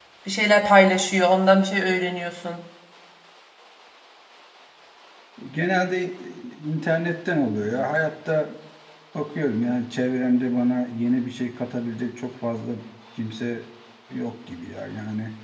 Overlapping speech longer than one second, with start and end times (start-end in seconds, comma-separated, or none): none